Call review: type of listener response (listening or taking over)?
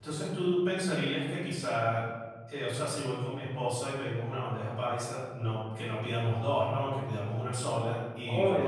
listening